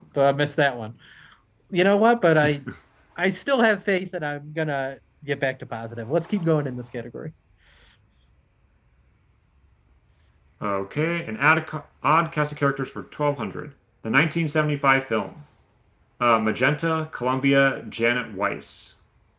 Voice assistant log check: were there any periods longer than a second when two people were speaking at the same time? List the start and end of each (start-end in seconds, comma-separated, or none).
none